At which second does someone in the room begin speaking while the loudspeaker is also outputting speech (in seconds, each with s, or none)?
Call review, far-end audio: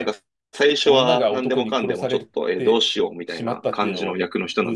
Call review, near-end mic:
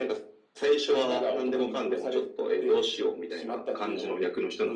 none